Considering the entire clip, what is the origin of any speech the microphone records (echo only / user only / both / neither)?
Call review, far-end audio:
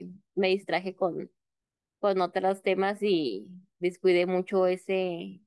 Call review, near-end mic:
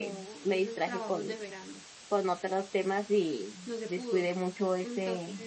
both